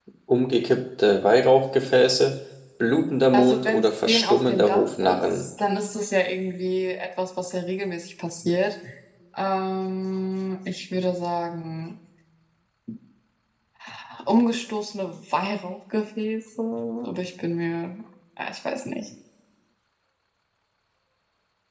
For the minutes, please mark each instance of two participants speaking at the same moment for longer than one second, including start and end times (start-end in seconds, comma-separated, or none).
3.3-5.5